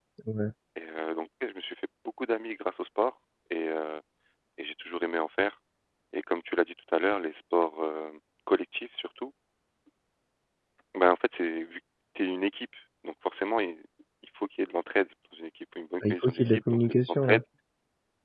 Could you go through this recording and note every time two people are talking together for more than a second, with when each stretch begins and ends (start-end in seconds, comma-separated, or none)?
16.0-17.4